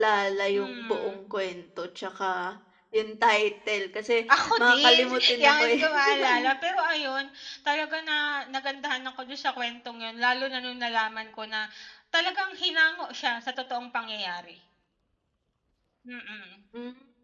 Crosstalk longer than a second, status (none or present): present